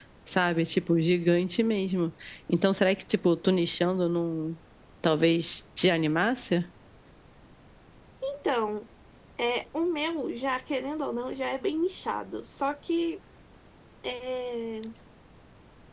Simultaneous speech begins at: none

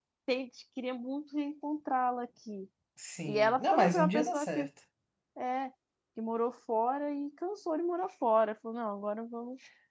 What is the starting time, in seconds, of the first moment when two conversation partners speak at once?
3 s

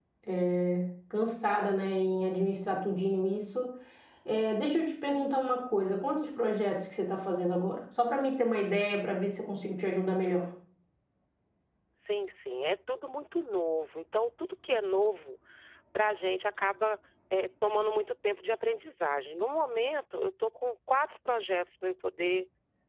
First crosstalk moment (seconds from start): none

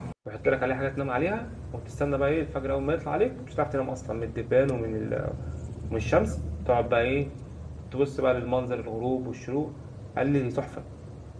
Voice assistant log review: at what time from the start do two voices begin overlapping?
none

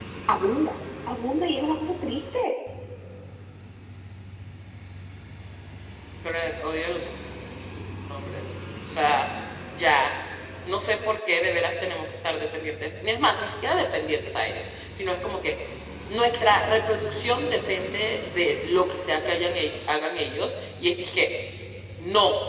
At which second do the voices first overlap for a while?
none

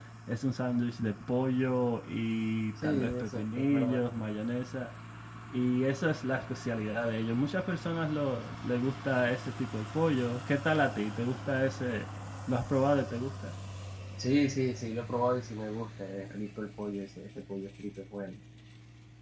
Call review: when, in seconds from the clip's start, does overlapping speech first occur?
3 s

